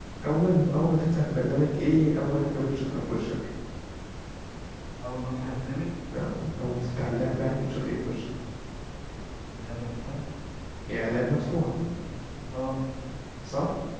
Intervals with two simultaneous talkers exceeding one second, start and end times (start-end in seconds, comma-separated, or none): none